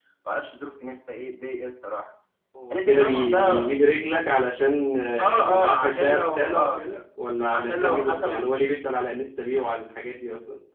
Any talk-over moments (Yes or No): Yes